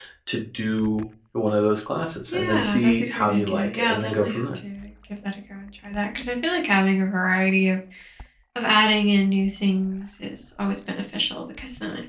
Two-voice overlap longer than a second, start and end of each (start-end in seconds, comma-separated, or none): 2.3-4.6